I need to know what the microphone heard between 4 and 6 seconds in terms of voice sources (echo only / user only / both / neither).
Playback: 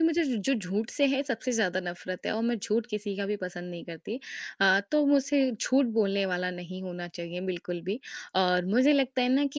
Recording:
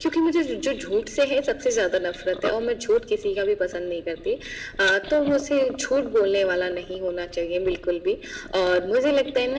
echo only